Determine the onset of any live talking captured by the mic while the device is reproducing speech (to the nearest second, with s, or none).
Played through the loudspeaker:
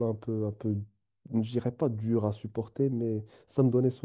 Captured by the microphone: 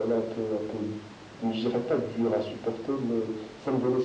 none